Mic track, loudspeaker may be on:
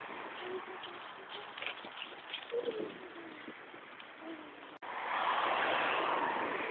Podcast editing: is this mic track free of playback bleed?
Yes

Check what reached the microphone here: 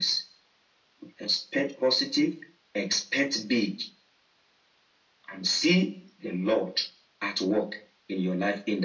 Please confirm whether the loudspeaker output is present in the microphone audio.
Yes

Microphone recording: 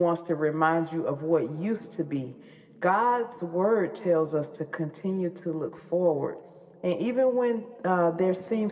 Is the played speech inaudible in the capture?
Yes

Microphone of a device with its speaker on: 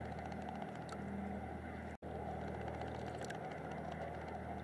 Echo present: No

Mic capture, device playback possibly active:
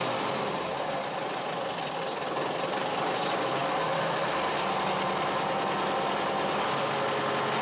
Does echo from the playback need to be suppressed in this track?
No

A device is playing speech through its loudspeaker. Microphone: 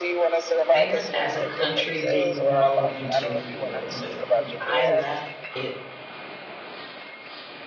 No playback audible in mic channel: No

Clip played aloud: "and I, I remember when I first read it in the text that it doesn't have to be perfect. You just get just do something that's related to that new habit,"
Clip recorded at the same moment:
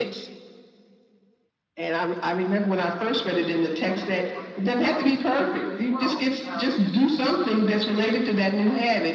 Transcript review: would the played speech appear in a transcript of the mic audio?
Yes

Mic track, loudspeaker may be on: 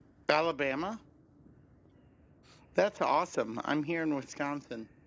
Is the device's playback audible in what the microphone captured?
No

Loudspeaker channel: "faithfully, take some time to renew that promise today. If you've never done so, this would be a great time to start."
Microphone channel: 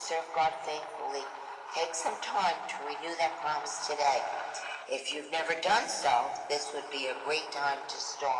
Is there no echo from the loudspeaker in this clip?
No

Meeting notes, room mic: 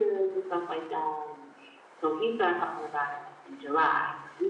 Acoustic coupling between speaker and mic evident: Yes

